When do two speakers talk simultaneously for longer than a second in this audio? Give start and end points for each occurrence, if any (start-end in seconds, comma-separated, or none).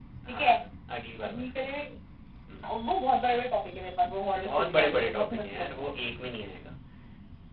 4.4-5.6